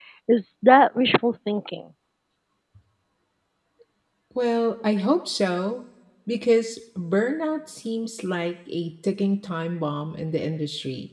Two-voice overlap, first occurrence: none

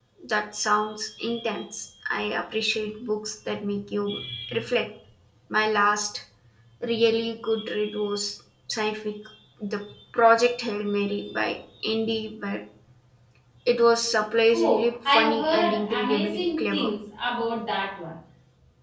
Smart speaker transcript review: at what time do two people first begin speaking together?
14.5 s

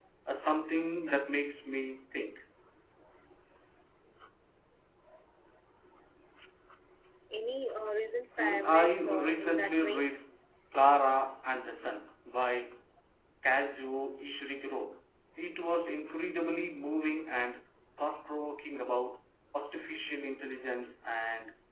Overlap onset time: 8.4 s

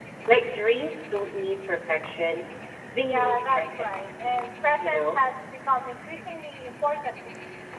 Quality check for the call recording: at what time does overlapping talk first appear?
3.0 s

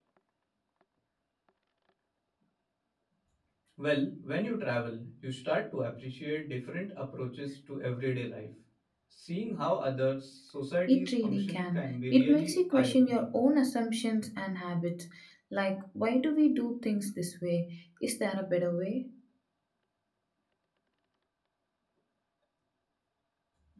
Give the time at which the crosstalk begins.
10.9 s

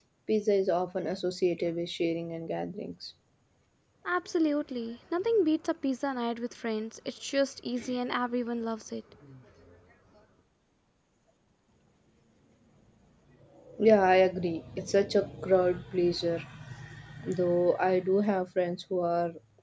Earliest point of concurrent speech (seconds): none

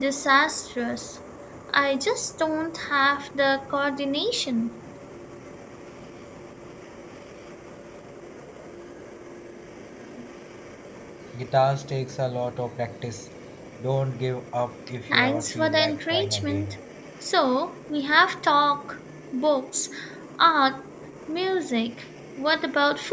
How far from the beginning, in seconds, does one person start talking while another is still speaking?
15.1 s

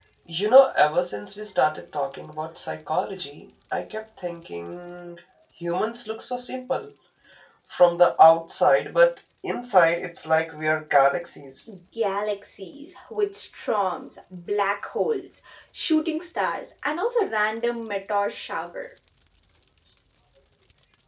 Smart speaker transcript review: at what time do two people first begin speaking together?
none

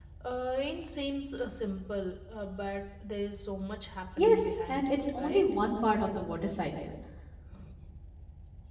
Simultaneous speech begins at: 4.2 s

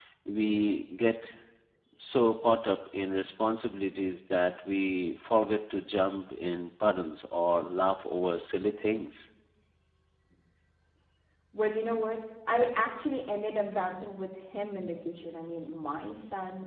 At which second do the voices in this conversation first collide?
none

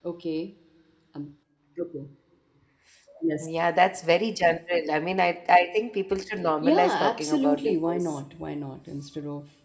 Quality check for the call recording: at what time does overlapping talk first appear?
6.6 s

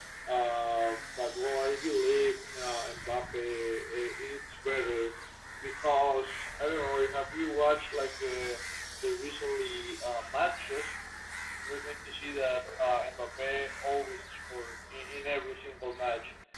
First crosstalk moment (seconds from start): none

